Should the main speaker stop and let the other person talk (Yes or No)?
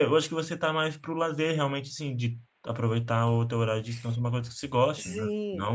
Yes